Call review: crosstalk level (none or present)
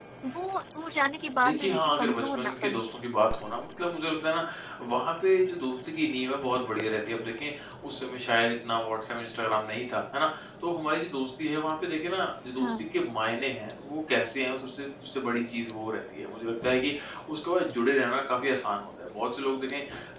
present